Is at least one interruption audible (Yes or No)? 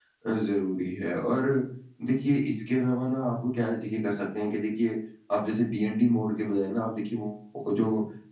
No